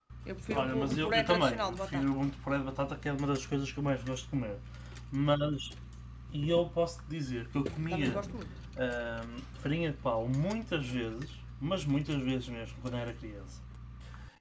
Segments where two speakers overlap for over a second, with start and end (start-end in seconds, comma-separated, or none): 0.5-2.1